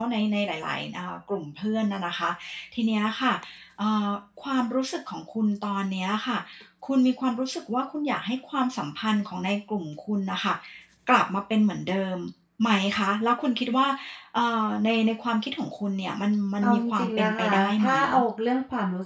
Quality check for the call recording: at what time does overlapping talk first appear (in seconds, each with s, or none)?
16.6 s